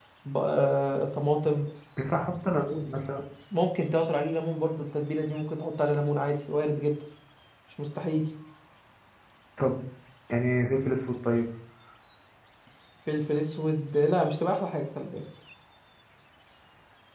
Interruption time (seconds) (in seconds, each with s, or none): none